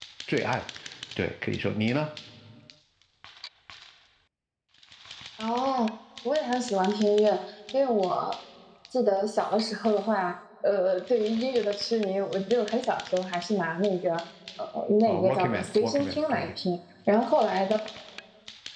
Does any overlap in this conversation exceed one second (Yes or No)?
Yes